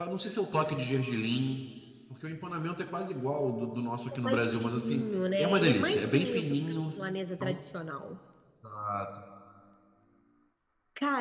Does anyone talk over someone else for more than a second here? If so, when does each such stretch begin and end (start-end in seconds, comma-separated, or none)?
4.2-6.8